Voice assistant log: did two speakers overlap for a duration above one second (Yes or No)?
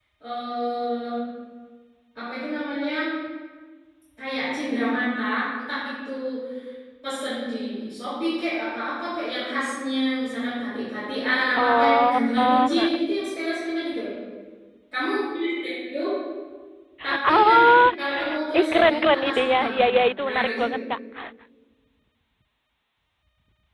Yes